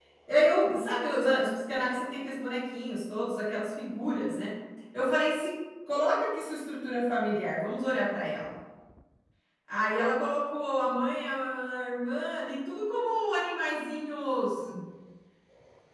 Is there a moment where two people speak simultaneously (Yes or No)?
No